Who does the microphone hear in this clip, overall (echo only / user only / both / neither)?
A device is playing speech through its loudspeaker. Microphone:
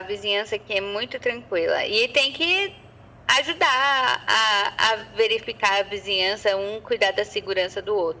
echo only